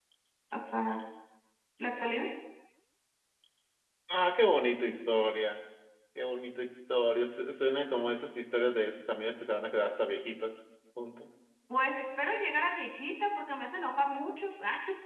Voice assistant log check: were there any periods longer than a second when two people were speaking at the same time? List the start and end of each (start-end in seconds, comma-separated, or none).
none